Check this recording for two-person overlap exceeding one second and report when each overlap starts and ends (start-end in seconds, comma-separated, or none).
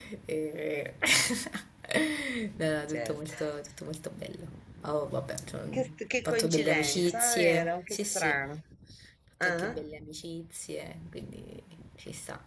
6.2-8.4